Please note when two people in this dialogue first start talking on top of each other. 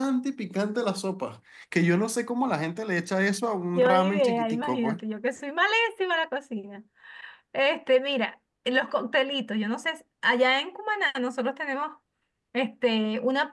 3.8 s

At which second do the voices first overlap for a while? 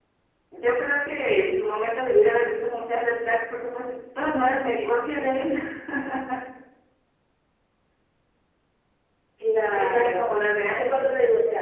9.7 s

